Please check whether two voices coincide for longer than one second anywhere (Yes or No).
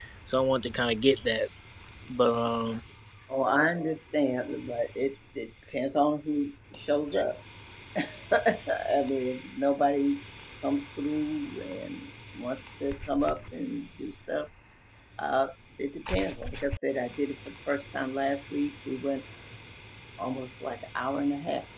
No